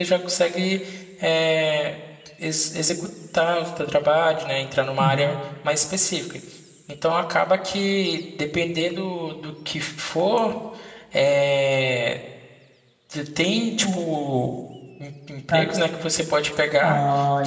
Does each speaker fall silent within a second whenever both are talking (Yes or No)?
Yes